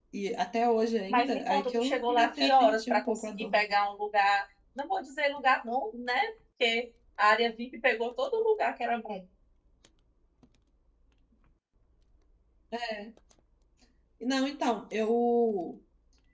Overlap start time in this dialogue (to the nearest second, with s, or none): 1 s